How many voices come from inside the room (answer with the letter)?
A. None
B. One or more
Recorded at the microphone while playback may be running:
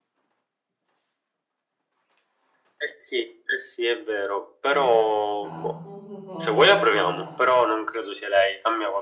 B